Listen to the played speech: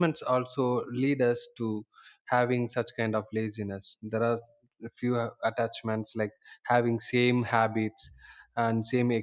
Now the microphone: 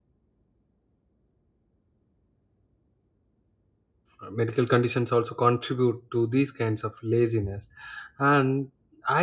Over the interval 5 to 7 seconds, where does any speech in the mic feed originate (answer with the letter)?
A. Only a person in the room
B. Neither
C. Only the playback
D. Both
A